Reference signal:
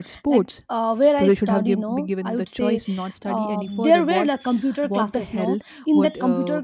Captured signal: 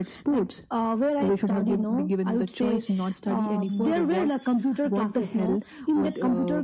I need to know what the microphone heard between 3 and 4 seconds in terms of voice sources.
echo only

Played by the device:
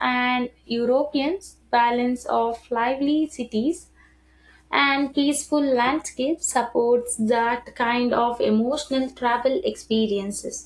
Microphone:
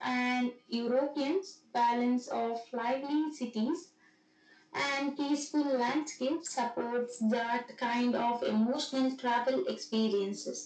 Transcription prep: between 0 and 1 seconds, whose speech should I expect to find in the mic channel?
echo only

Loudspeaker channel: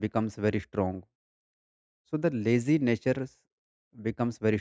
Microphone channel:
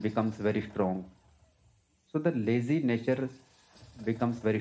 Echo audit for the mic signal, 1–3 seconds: echo only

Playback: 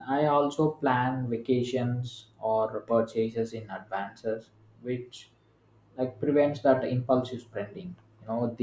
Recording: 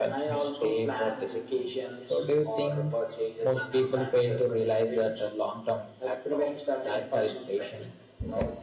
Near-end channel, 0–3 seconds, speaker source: both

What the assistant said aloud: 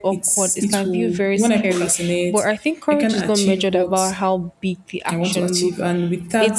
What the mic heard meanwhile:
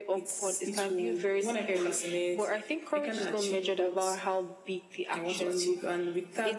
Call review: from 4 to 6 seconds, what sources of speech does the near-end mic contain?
echo only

